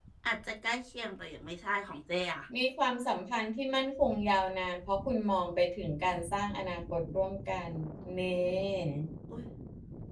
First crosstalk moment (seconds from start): none

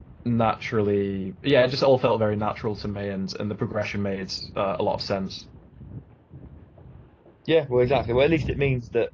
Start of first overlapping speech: none

